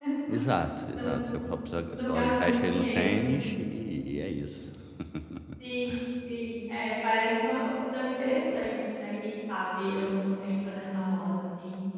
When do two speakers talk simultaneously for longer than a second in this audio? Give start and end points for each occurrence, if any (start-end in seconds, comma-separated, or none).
1.9-3.4